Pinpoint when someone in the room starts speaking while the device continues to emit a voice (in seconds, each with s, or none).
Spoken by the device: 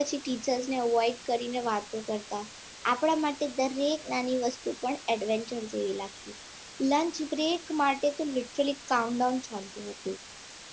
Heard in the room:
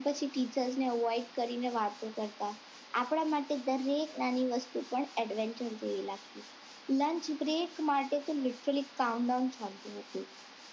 none